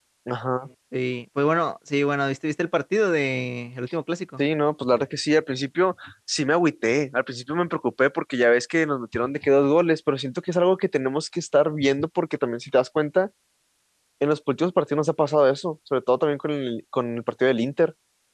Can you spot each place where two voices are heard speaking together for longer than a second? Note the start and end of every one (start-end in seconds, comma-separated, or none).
none